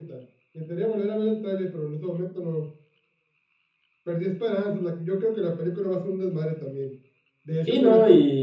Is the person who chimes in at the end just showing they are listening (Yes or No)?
No